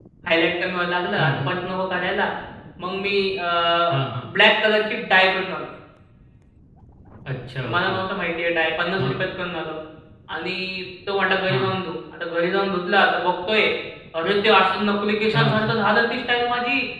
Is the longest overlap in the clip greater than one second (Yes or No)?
No